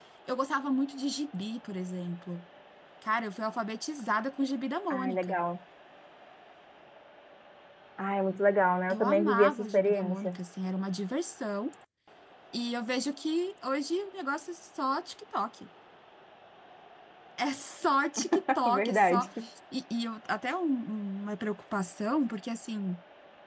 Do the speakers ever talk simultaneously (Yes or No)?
Yes